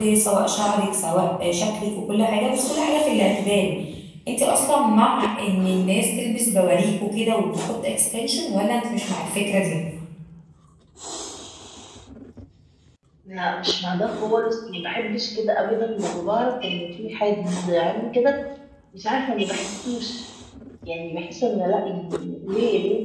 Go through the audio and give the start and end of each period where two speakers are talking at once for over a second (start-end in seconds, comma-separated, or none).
none